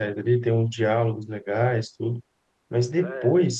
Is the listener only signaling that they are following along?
Yes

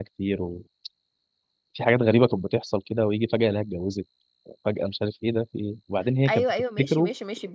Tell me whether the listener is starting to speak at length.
Yes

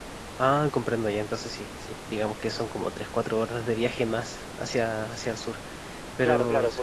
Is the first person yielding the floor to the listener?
Yes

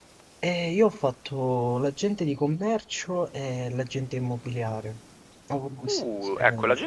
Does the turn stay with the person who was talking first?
No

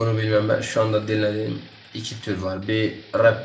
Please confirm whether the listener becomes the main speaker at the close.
No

